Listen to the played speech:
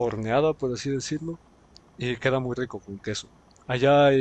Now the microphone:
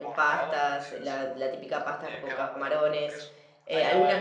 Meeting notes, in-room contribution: present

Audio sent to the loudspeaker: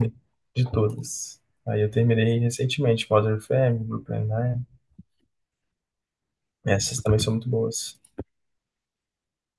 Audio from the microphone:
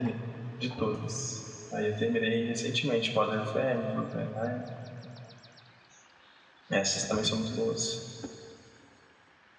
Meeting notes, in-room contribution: none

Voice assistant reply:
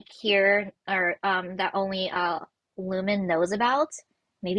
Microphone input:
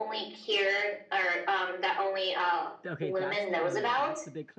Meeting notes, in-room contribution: present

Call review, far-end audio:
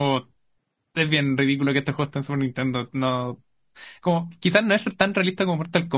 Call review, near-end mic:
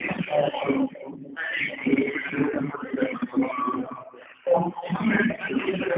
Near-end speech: none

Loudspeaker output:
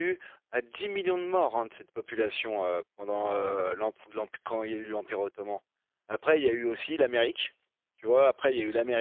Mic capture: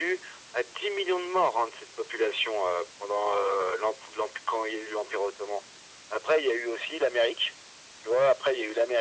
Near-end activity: none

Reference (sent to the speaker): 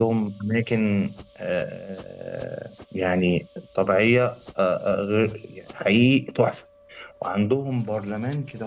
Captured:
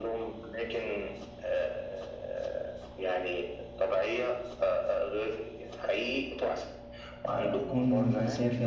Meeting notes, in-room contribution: present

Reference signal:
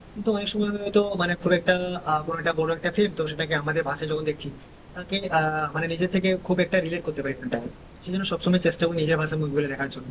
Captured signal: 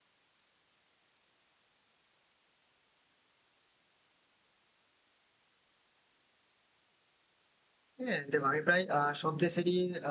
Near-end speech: present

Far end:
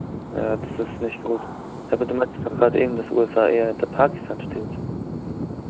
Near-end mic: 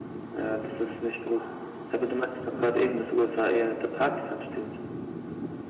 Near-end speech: none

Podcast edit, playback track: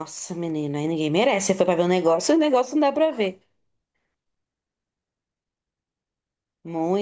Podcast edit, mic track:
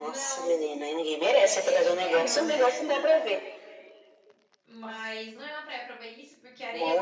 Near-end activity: present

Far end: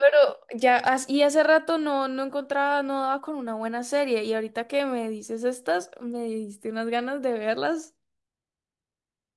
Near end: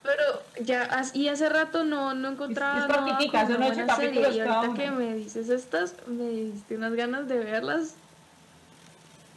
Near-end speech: present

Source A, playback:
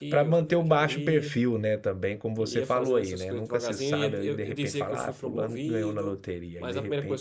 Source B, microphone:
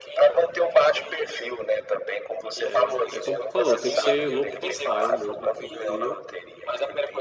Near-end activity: present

